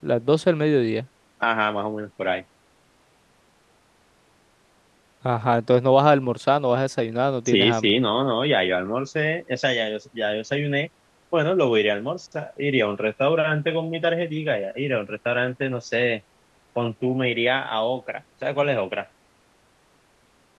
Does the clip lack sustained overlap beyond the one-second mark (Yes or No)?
Yes